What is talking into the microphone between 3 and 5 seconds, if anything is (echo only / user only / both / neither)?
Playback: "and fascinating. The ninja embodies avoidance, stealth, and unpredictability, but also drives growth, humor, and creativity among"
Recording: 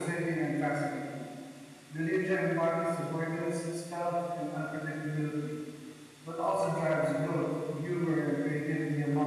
echo only